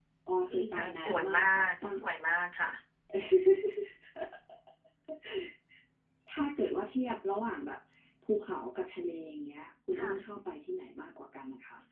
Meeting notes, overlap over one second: present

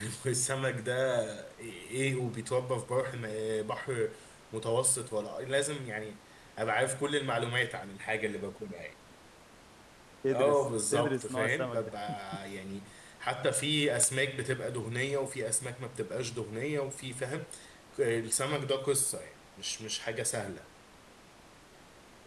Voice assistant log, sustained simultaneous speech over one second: present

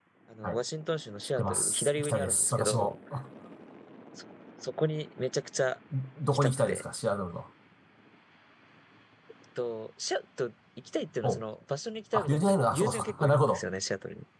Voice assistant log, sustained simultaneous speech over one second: present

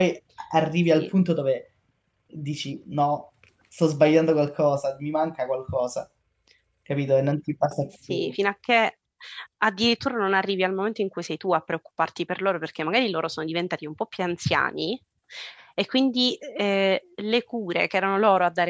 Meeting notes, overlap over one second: none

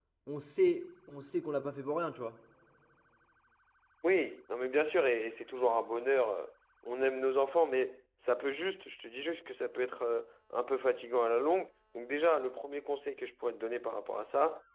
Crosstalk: none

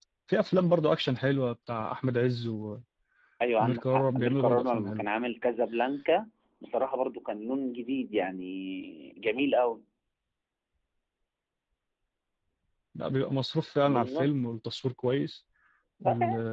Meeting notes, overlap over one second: present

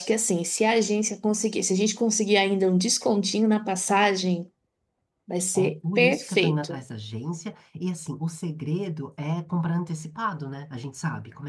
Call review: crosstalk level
present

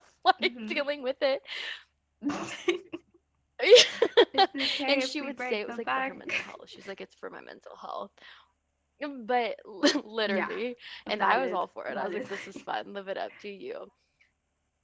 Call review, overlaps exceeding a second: present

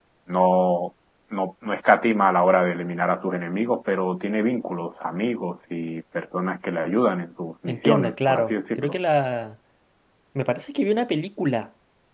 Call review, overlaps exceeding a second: present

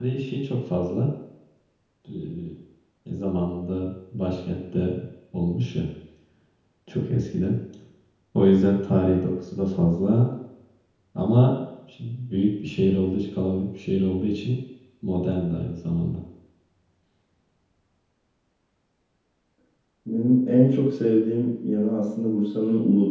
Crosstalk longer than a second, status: none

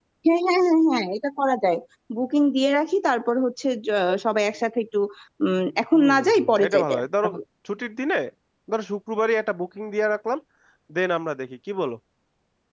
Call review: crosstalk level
present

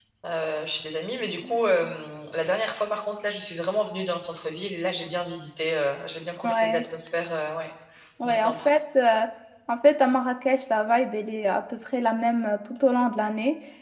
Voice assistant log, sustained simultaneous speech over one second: none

